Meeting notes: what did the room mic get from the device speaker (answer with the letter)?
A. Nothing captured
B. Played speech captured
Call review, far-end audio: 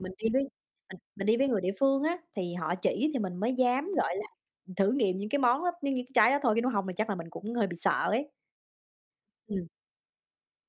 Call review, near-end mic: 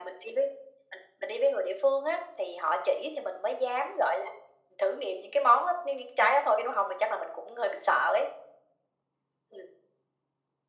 B